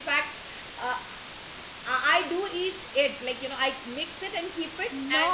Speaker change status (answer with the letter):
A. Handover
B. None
A